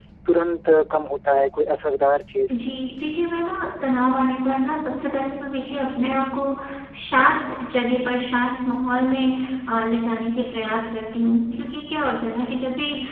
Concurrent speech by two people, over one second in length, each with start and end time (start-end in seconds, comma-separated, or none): none